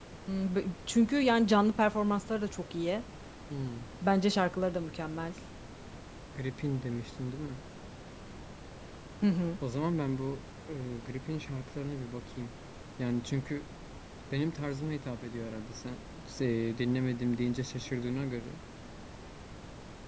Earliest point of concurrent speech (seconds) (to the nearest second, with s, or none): none